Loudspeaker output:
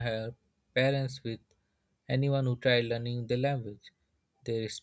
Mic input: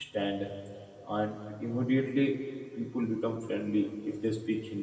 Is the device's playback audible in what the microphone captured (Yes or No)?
No